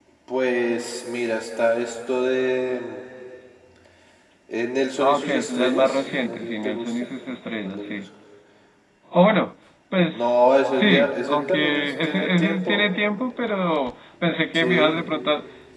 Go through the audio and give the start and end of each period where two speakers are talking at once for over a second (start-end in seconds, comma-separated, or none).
5.0-6.9, 10.1-12.9